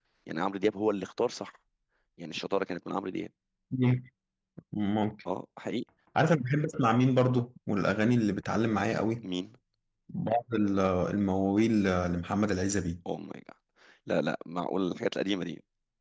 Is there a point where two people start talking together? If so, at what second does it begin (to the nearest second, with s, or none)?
none